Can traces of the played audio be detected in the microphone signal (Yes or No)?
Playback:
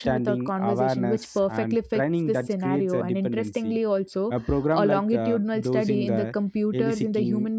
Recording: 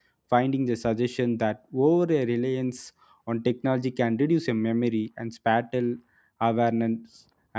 No